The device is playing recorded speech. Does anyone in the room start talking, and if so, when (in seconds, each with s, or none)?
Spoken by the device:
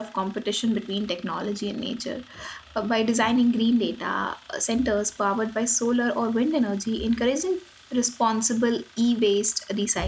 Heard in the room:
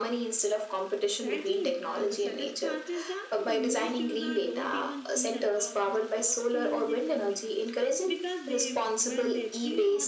1.0 s